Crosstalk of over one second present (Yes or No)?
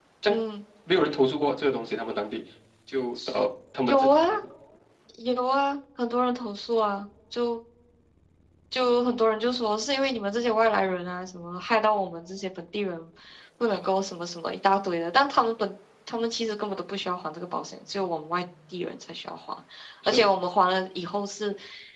No